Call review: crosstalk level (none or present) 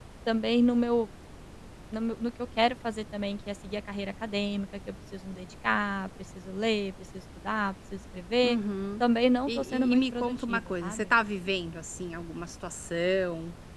present